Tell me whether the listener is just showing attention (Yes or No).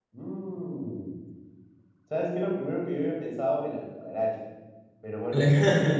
Yes